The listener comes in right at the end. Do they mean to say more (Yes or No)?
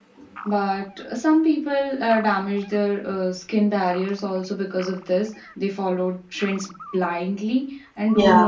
No